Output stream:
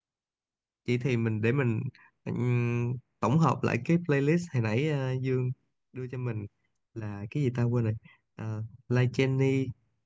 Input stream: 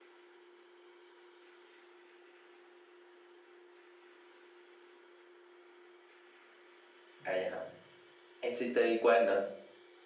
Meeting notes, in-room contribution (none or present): present